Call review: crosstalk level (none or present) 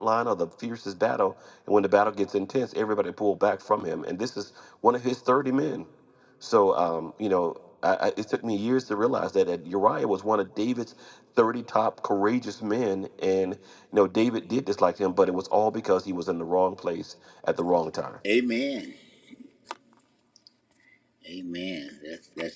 none